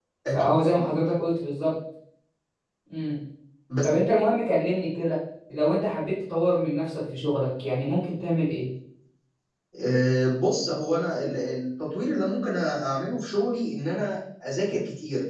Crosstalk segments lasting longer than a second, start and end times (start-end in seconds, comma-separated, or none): none